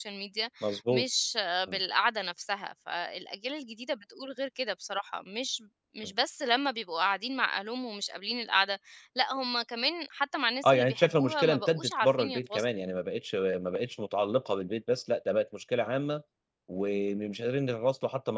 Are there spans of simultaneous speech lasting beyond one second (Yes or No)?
Yes